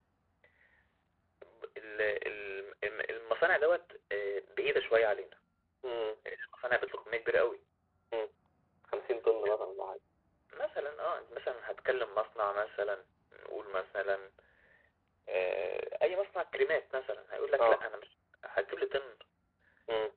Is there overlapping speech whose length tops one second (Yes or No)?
No